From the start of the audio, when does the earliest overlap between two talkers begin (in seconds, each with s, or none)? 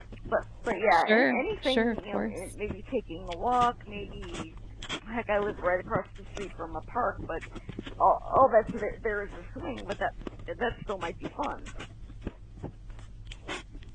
0.9 s